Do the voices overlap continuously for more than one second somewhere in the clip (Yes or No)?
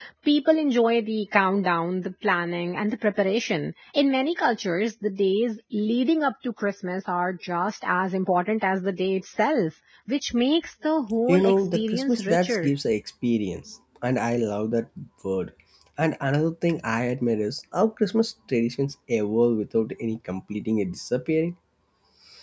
Yes